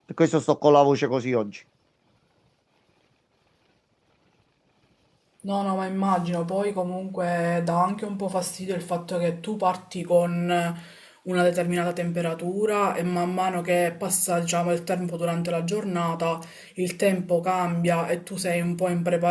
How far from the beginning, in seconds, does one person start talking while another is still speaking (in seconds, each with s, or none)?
none